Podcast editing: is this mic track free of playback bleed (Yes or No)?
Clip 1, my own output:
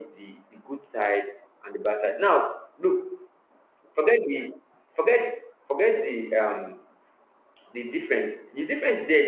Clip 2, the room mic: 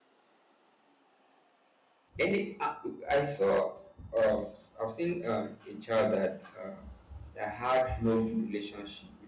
Yes